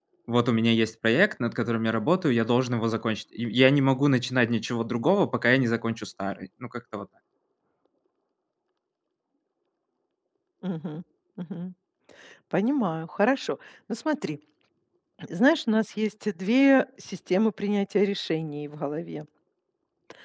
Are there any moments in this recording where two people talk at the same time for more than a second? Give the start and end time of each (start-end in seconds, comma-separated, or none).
none